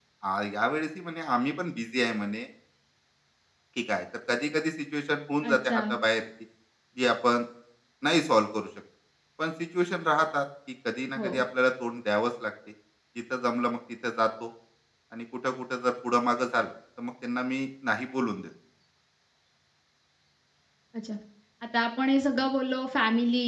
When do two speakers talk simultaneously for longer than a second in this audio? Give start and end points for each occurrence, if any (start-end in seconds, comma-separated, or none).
none